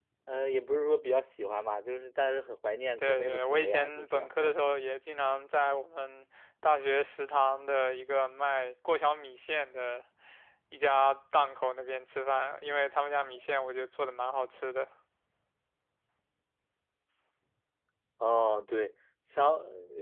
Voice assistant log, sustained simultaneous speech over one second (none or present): present